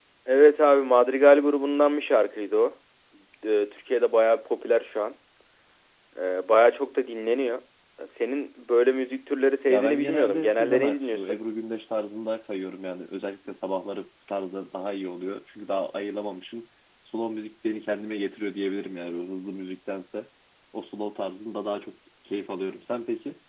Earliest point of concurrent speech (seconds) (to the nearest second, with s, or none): 10 s